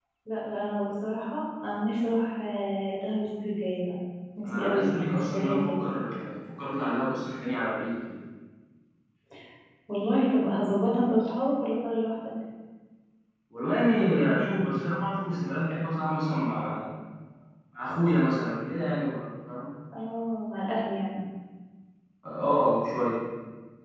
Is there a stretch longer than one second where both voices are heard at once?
Yes, from 4.6 s

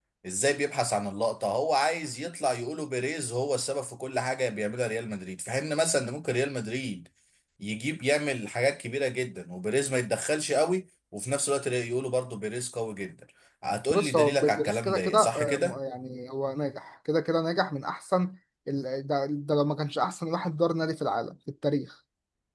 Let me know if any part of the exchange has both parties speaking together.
Yes, from 13.9 s

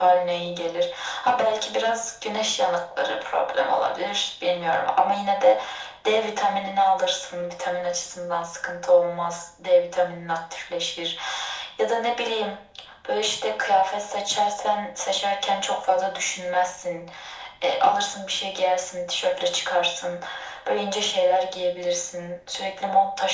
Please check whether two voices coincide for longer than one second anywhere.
No

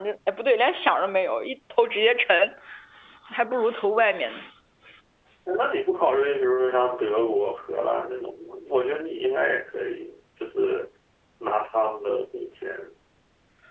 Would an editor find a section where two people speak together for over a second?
No

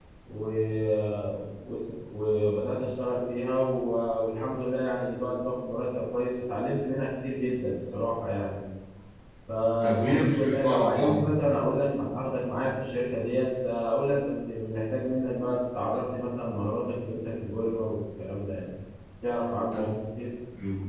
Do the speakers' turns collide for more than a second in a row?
Yes, from 9.8 s

